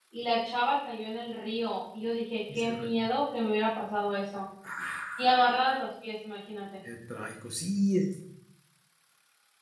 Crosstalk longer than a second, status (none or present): none